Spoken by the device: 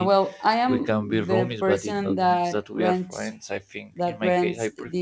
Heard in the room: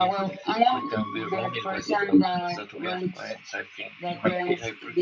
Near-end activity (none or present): none